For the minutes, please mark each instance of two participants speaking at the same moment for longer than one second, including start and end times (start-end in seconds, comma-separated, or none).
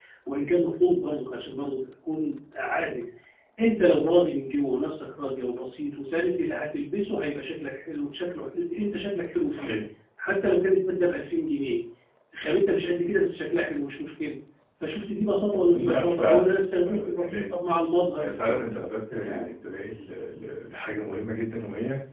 15.7-17.3